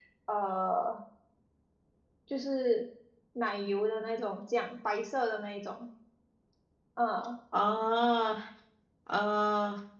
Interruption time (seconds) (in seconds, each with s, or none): none